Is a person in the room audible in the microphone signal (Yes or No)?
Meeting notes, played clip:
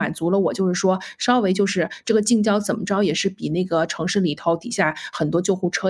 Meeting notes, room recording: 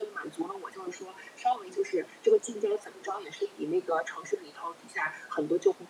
No